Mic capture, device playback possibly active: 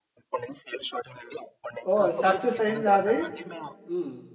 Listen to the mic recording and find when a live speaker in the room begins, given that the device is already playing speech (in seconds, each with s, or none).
1.9 s